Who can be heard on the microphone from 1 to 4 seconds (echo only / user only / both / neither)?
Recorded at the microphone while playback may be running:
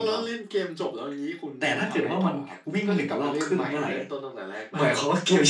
echo only